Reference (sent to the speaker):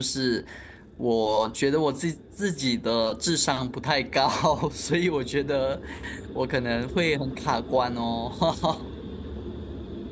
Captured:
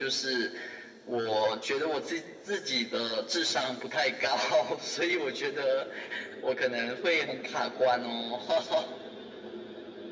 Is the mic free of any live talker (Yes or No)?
Yes